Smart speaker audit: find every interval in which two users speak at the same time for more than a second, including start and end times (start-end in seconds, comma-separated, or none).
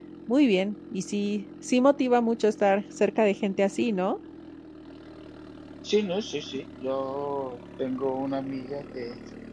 none